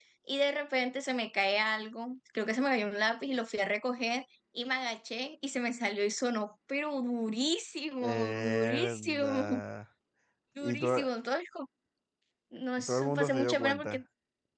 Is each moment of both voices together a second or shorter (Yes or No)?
No